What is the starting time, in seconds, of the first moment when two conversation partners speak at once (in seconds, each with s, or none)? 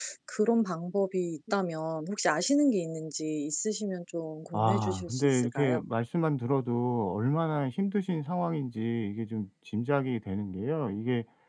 4.5 s